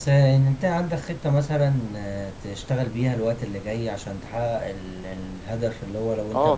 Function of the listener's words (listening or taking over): listening